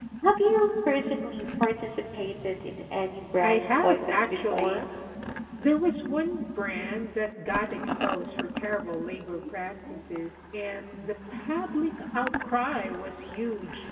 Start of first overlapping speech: 3.4 s

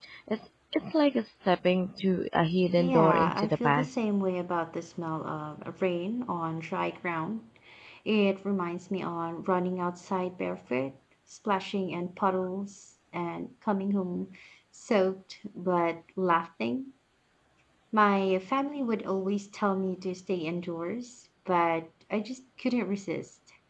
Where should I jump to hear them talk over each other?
2.8 s

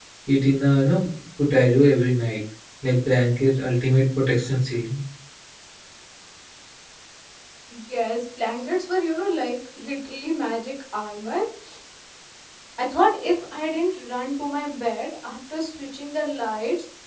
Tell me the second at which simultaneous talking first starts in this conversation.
none

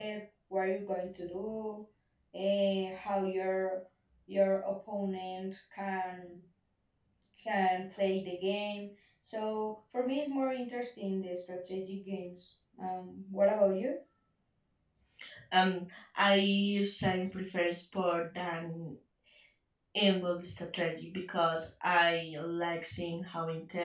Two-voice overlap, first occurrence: none

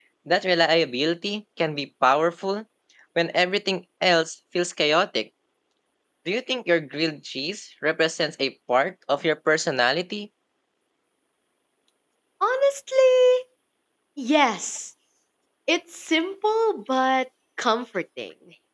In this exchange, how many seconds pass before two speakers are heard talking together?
none

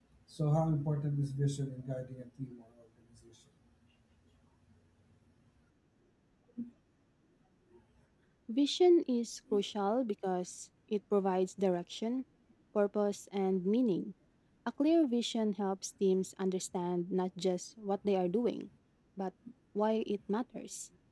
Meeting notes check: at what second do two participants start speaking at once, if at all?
none

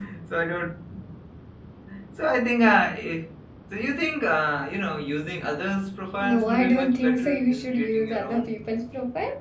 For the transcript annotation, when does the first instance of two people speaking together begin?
6.2 s

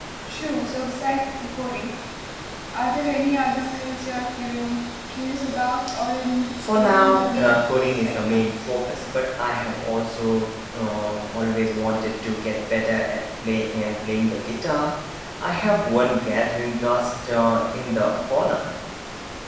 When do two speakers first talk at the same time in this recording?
6.6 s

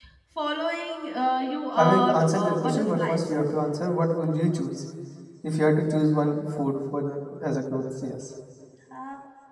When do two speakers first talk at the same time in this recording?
1.8 s

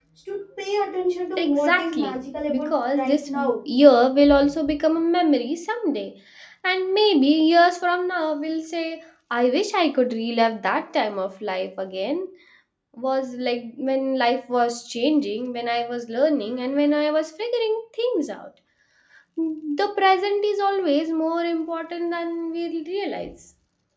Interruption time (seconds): 1.4 s

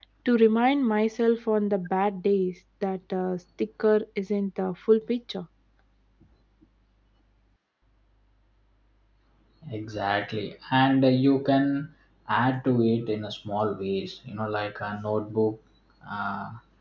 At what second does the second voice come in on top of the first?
none

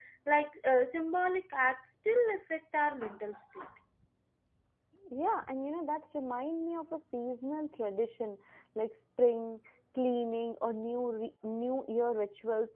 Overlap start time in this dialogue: none

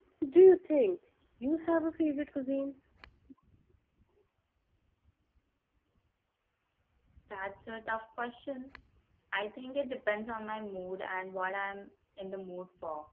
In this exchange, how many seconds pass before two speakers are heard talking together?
none

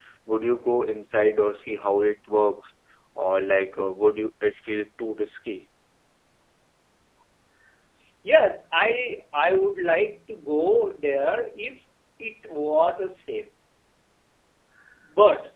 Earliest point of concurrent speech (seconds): none

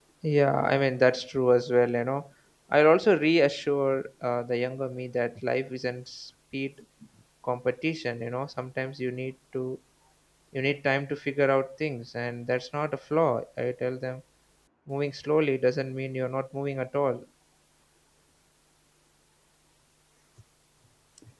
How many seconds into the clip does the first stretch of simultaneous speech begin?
none

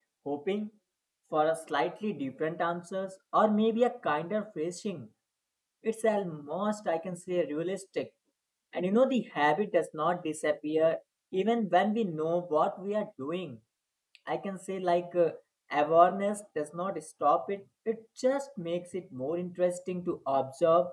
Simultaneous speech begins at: none

